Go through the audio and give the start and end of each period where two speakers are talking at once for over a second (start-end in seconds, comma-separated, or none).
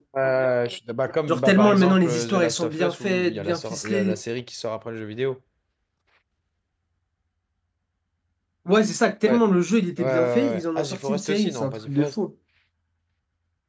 1.3-4.2, 10.0-12.2